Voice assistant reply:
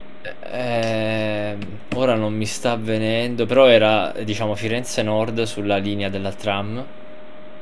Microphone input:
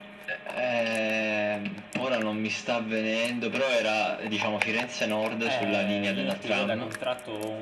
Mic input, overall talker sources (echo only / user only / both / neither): both